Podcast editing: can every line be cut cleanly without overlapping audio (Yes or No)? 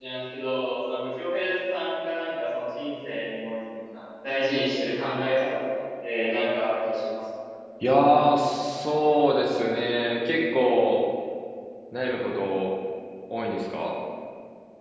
Yes